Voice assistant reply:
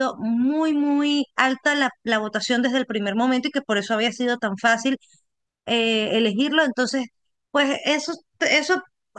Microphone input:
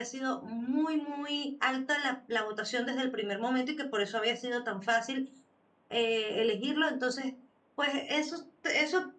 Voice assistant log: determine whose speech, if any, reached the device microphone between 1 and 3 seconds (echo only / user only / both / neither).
echo only